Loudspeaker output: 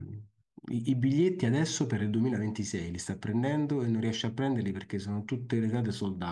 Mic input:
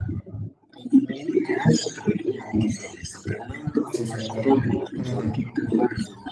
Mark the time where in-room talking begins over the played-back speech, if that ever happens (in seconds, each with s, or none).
3.8 s